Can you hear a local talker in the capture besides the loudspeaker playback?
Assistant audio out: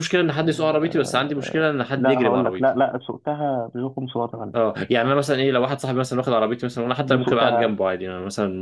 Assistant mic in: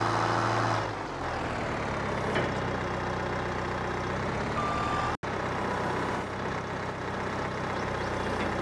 No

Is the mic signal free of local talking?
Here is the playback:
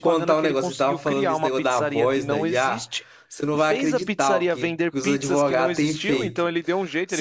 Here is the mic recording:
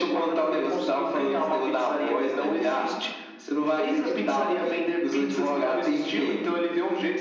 Yes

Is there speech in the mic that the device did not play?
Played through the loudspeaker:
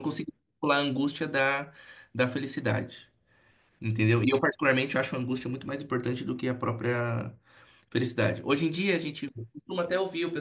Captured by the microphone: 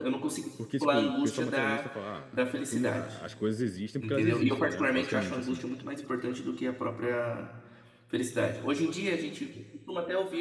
Yes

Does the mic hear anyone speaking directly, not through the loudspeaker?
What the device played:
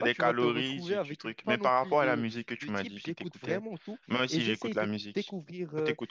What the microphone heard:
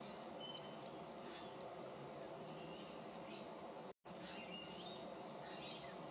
No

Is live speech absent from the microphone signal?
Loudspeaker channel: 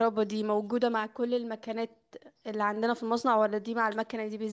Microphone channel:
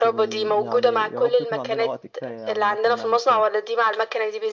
No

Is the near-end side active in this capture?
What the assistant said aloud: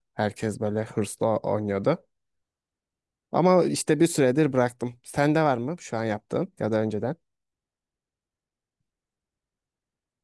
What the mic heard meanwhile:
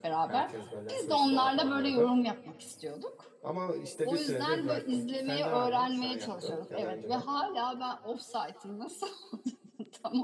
Yes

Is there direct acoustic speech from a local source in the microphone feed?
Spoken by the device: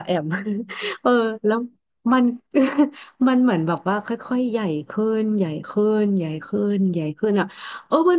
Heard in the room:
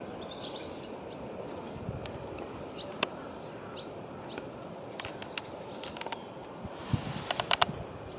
No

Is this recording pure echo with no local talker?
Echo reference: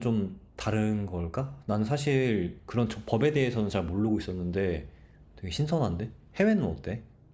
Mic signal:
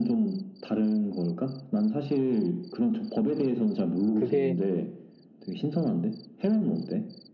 No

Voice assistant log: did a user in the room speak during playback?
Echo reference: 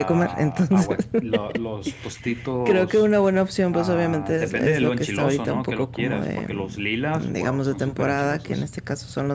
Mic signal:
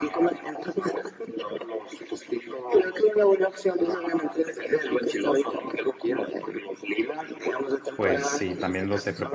Yes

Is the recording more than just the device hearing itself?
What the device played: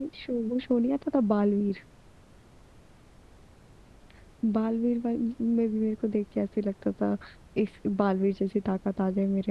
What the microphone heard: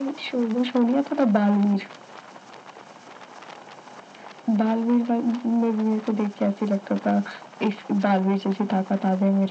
No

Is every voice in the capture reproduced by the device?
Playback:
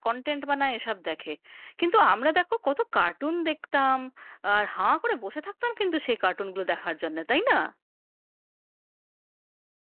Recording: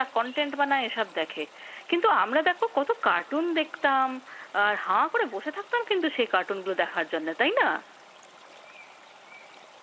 Yes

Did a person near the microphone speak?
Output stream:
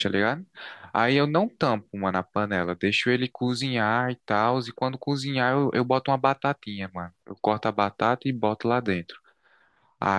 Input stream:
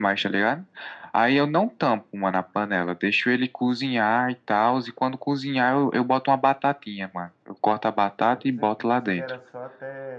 Yes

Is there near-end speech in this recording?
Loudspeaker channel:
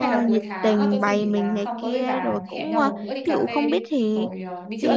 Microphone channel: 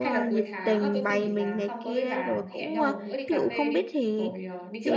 No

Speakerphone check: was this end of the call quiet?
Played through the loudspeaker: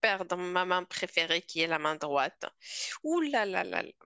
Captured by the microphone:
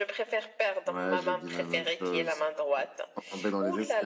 No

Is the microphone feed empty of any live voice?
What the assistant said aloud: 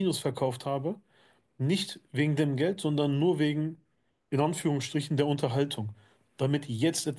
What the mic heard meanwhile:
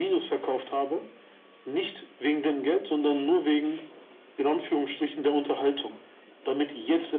Yes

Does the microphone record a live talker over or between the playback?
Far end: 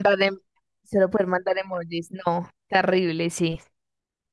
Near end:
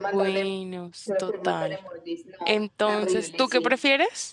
Yes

